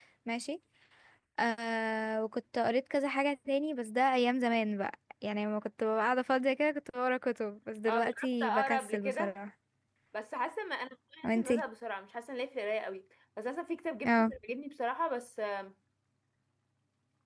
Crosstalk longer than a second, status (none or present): present